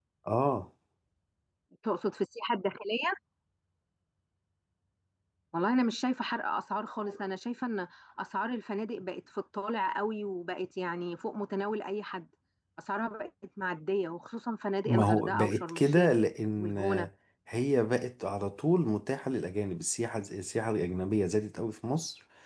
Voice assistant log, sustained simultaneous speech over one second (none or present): present